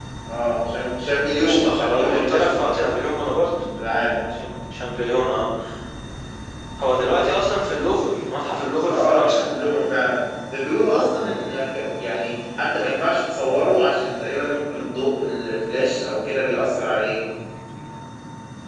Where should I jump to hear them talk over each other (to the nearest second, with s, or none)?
1 s